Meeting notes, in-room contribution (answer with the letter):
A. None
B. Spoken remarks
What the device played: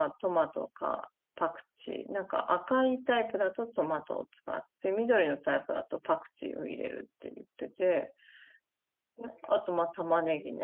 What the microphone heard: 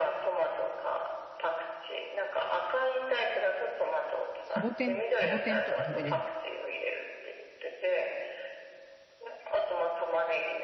B